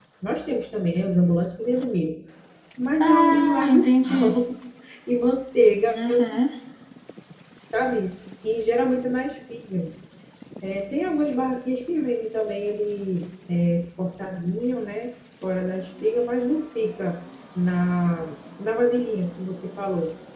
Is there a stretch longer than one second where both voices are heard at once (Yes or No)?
Yes